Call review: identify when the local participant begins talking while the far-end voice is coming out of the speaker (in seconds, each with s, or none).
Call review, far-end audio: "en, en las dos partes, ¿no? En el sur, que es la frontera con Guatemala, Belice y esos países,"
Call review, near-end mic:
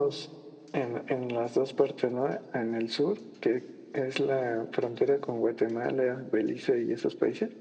none